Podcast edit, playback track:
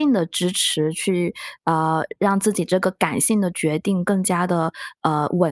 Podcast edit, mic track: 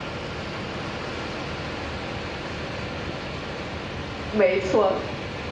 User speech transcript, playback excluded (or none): 没错。